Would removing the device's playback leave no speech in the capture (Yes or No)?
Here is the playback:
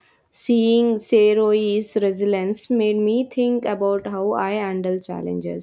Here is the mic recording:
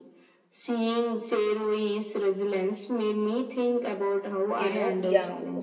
No